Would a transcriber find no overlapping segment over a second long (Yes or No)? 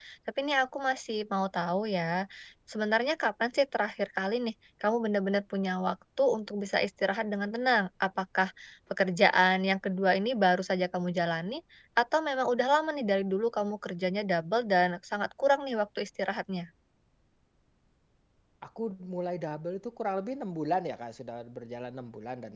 Yes